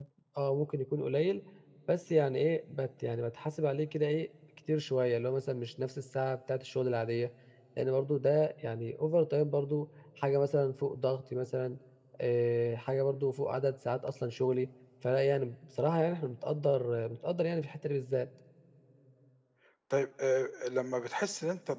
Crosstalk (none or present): none